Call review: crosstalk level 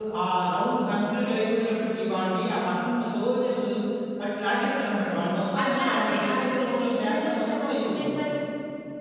present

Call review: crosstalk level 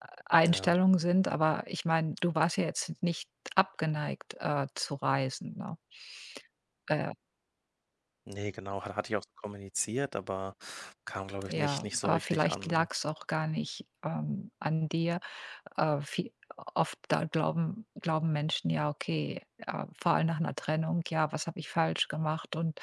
present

